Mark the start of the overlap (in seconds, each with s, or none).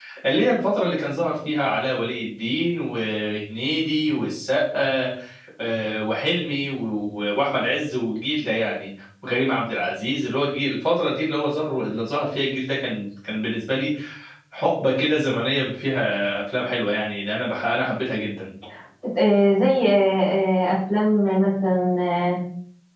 none